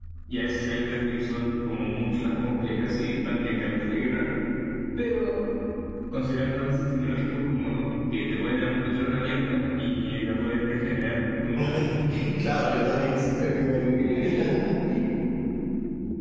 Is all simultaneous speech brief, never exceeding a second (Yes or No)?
Yes